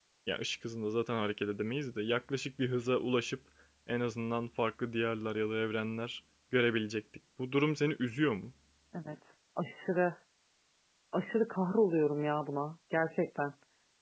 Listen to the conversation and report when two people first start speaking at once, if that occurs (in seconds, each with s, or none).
none